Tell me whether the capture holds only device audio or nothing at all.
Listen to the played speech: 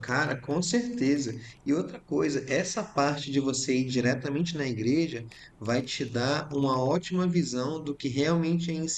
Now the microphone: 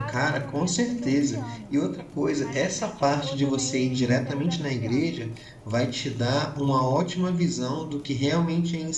No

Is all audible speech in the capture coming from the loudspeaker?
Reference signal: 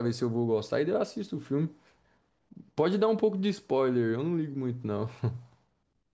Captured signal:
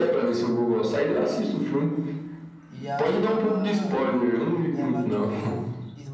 No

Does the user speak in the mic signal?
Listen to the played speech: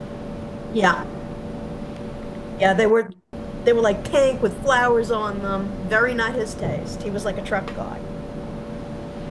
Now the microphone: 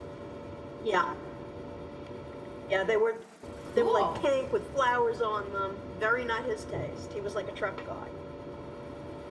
Yes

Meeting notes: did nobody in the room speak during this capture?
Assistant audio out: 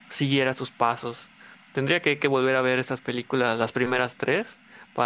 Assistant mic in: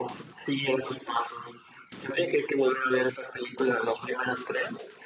Yes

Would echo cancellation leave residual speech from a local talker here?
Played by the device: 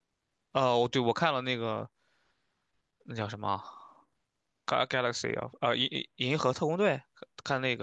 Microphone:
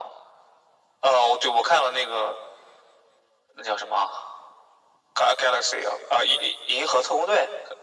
No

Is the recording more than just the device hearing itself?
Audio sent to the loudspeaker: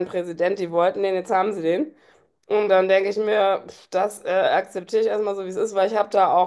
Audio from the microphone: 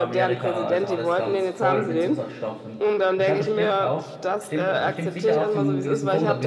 Yes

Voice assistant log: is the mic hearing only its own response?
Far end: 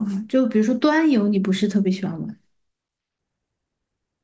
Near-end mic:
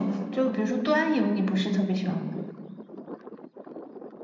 Yes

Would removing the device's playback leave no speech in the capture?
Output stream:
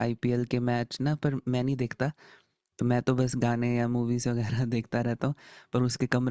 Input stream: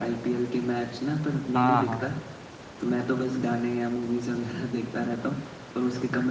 No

